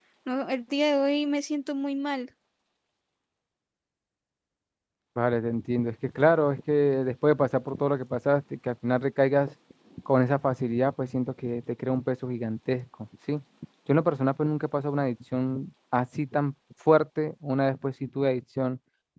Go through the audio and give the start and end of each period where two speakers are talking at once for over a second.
none

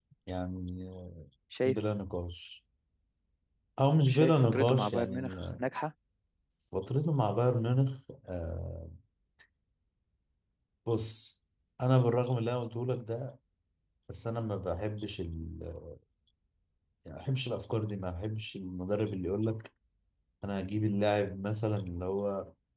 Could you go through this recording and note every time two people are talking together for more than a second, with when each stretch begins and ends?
4.1-5.7

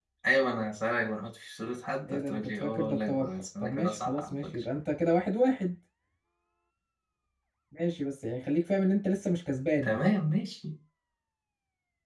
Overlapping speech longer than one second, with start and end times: 2.1-4.5

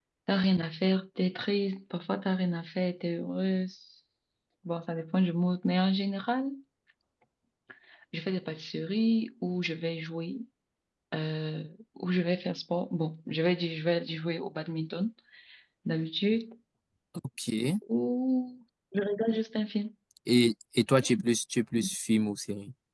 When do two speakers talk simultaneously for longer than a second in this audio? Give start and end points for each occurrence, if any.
none

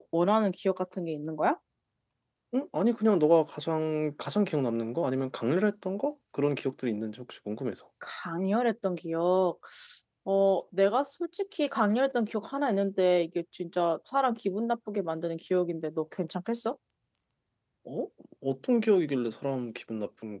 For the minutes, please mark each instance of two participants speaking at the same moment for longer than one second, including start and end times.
none

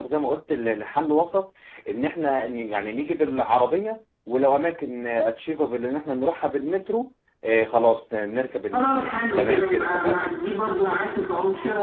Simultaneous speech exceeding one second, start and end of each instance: 8.7-10.3

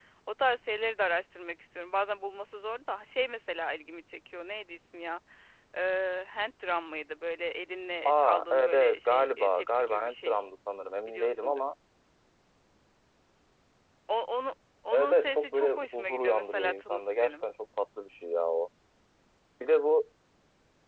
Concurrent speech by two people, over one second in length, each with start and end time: 8.0-10.4, 14.9-17.4

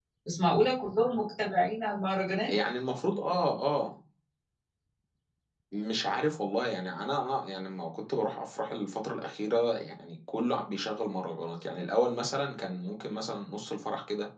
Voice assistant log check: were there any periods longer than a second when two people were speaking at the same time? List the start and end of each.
none

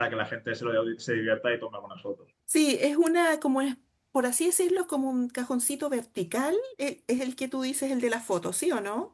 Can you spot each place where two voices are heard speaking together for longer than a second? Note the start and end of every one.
none

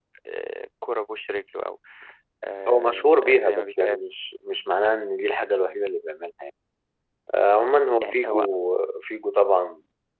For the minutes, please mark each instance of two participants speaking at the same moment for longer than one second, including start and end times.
2.7-4.1

